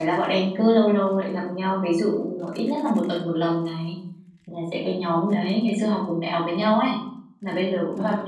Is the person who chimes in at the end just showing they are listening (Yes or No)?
Yes